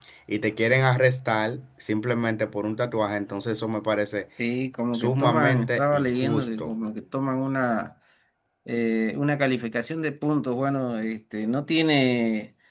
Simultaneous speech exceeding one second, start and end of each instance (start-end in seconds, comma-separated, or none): 4.9-6.7